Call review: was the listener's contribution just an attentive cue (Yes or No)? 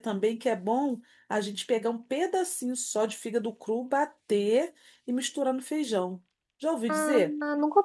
No